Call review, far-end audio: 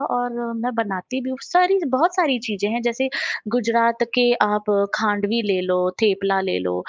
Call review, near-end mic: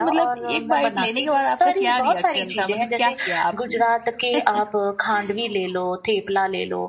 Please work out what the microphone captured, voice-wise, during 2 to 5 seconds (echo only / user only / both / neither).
both